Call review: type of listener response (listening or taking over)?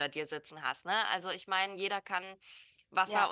taking over